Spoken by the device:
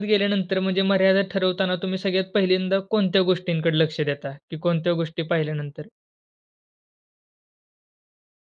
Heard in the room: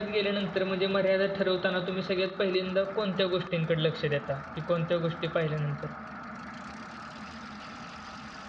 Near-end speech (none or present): none